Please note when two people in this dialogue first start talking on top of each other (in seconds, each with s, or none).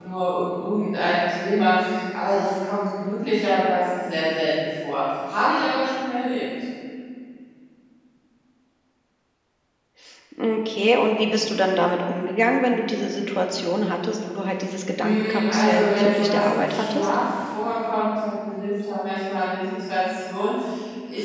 15.0 s